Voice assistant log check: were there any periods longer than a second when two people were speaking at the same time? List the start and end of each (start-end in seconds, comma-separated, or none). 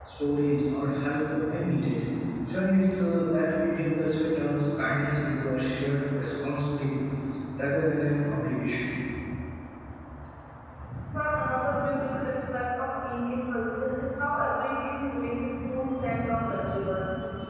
none